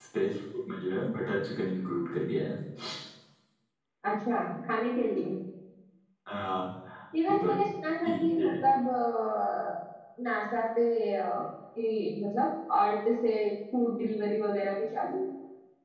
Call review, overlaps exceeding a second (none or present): none